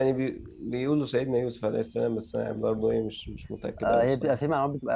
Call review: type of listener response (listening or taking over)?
taking over